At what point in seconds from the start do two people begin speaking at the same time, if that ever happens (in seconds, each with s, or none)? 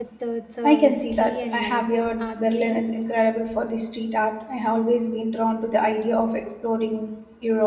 0.6 s